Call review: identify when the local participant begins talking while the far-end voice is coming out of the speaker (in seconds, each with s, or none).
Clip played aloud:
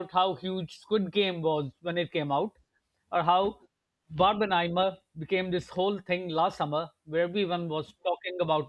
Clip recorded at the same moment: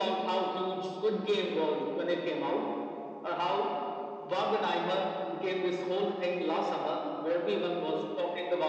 none